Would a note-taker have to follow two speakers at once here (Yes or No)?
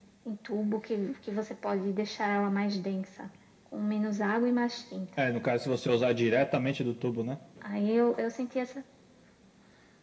No